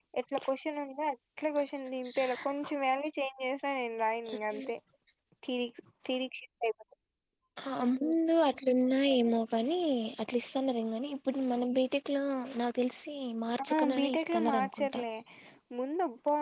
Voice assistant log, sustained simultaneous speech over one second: present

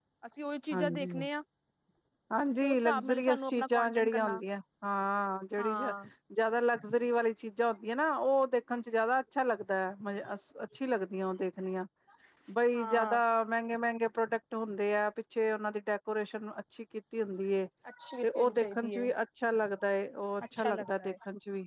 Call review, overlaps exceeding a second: present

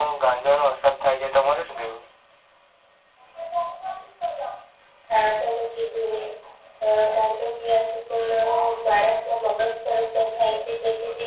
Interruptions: none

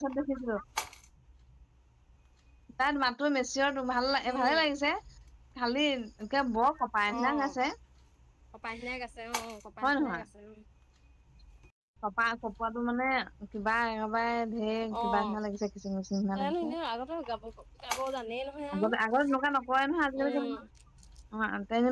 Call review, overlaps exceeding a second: none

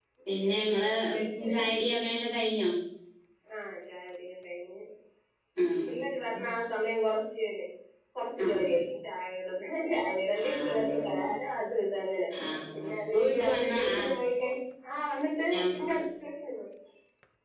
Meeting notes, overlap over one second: present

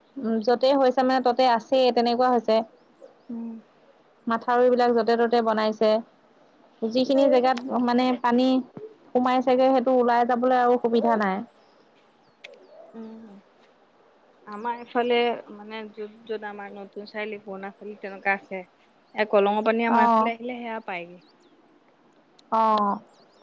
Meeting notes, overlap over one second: none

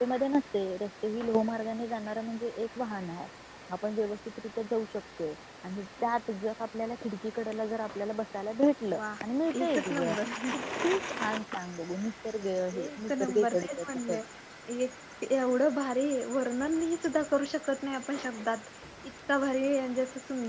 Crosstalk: present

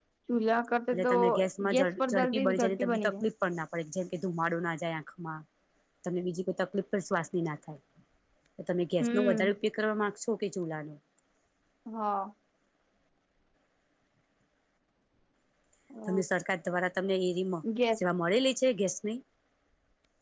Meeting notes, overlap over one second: present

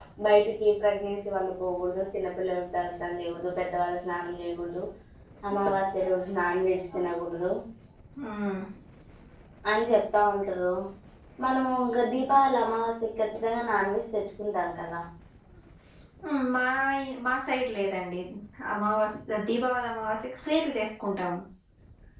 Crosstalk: none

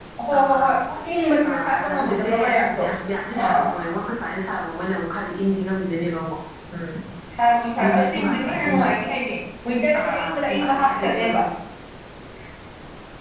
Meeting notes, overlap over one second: present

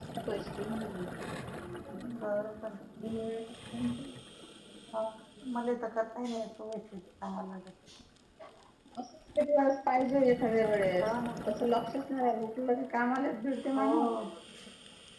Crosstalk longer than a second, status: none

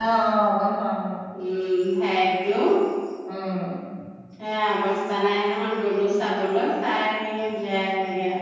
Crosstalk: none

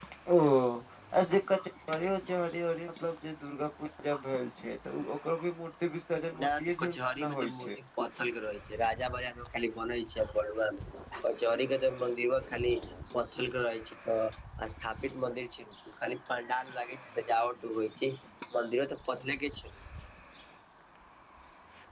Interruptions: present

